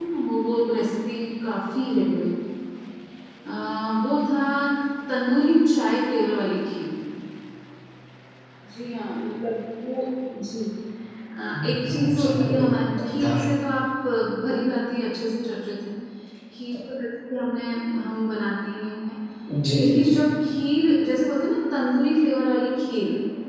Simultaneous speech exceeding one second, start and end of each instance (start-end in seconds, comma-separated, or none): 11.6-13.4